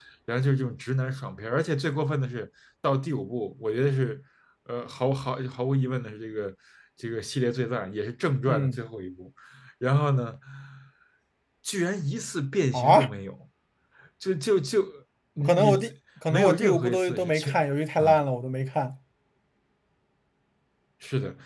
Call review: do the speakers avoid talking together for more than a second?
No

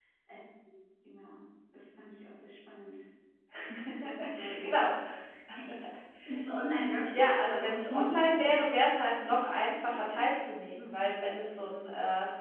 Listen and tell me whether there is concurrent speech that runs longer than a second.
Yes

